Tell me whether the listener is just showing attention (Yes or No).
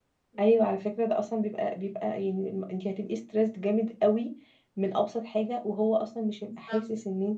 No